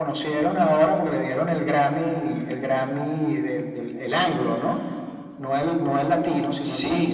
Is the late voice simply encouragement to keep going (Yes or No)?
No